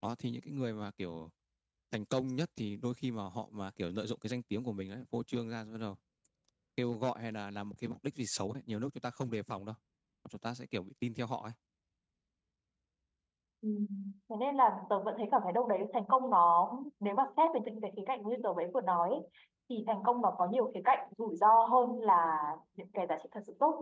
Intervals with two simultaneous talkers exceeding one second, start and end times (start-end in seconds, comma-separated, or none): none